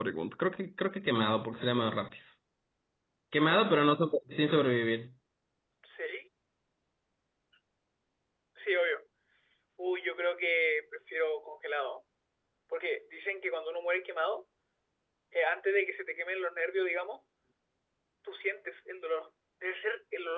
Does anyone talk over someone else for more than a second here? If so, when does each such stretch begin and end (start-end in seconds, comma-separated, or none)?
none